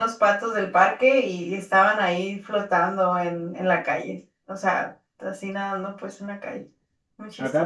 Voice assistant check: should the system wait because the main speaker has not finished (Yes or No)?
No